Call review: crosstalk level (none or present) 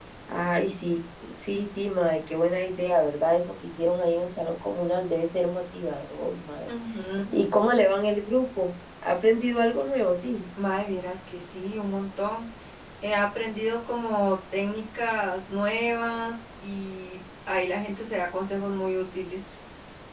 none